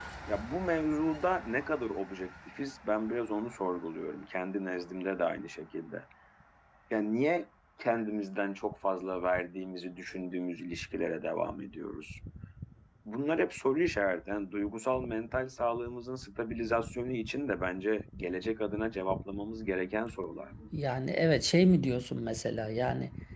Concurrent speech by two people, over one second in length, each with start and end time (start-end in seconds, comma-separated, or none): none